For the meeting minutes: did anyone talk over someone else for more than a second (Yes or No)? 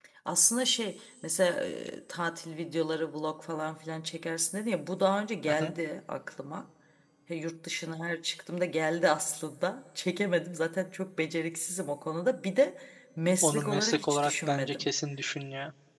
Yes